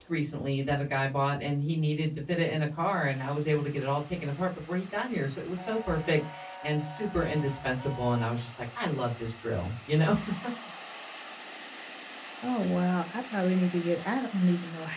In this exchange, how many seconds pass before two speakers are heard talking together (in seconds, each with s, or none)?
none